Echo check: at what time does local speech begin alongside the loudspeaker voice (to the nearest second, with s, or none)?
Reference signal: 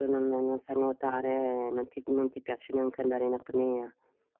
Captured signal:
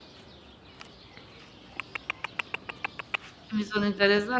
3 s